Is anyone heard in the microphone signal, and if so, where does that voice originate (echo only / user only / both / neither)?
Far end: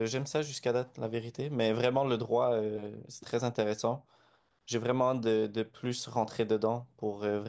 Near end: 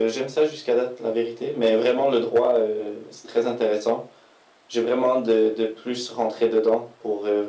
echo only